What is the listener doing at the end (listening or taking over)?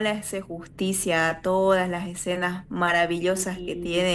listening